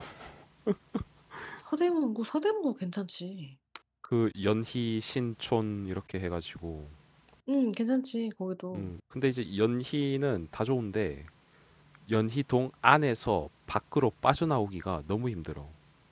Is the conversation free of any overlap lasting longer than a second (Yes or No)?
Yes